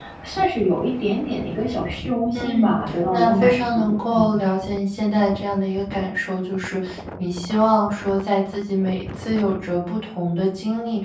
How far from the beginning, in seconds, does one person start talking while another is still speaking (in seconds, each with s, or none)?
2.3 s